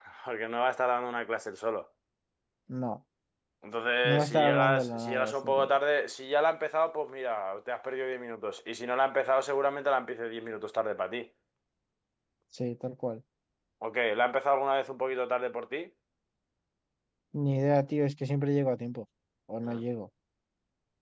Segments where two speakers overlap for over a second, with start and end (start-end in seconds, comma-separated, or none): 4.0-5.6